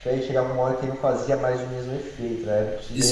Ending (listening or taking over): taking over